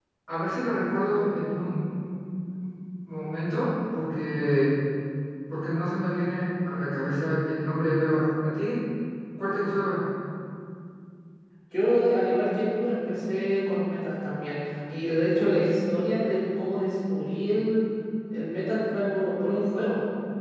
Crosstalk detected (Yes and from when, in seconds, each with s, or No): No